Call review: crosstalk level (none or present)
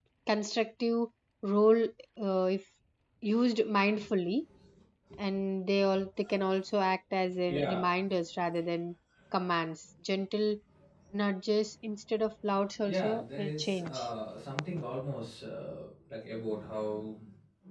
present